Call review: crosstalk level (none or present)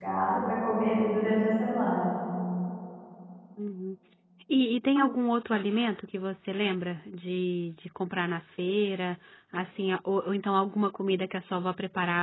none